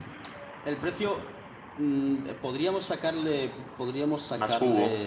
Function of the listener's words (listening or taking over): listening